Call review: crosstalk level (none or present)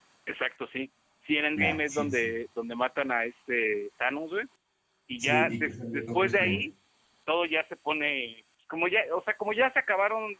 present